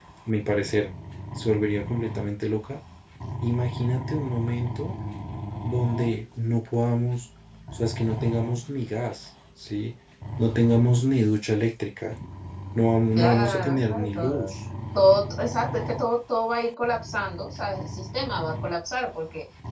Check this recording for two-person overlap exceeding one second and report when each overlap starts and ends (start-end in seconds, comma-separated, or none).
13.2-14.5